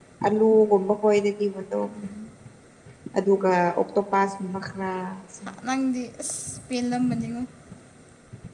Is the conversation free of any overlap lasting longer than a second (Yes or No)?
Yes